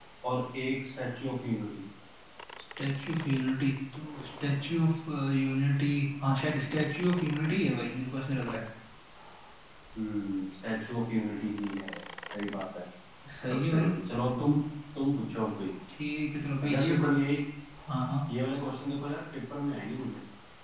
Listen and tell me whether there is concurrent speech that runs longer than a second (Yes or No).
No